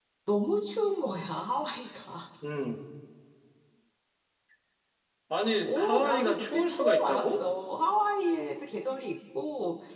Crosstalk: present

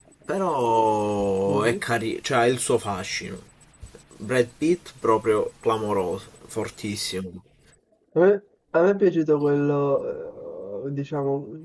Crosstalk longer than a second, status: none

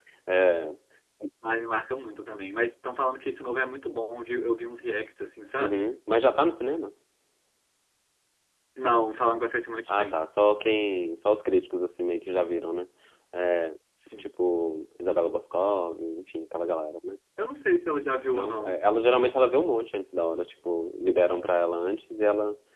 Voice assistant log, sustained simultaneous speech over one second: none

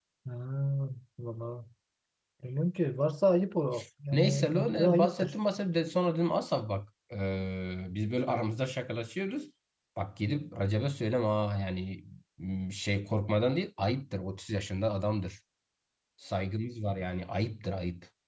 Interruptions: present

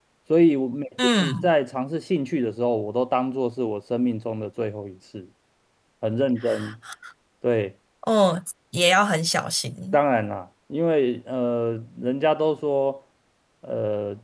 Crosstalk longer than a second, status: none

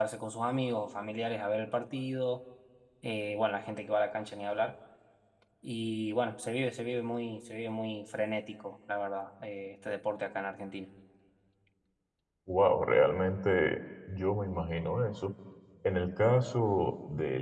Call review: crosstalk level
none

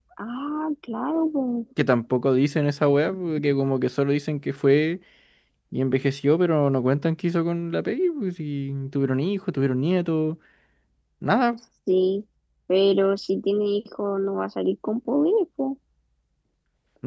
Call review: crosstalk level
none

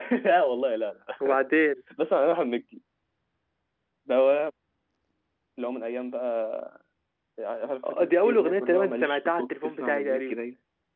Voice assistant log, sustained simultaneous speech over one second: present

